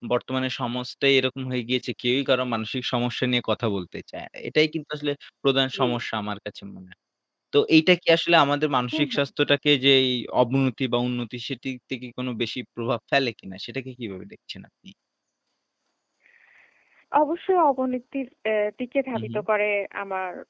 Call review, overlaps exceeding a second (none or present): none